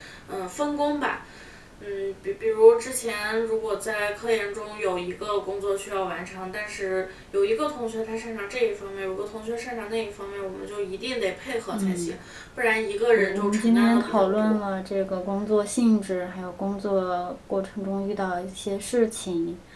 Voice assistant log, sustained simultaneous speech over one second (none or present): present